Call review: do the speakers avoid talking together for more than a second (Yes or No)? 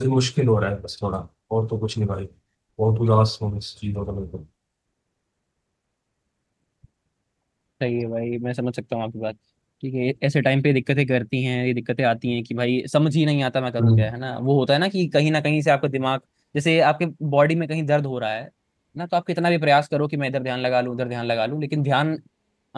Yes